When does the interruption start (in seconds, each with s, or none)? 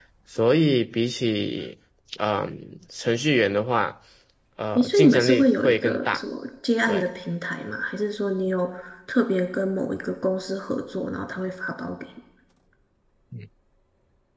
4.8 s